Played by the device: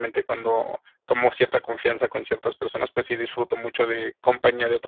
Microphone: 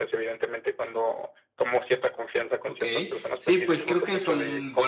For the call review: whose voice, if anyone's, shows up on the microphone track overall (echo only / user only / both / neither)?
both